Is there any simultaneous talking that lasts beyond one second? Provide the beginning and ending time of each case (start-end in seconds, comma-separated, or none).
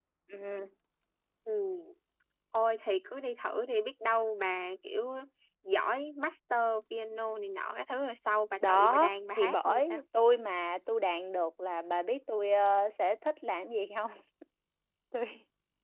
8.7-10.0